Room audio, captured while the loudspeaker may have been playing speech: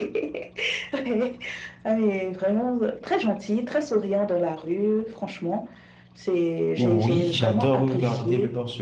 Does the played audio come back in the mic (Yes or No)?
Yes